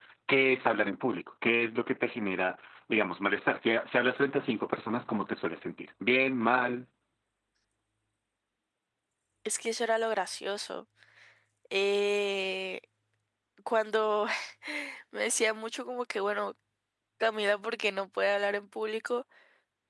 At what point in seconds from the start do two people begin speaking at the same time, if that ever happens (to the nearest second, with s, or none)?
none